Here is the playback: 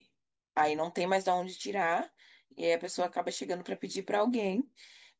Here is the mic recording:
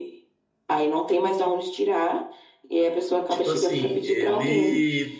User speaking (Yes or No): Yes